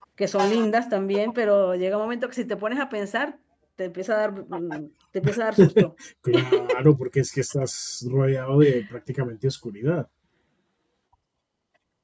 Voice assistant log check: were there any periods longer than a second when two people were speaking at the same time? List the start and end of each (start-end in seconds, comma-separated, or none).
none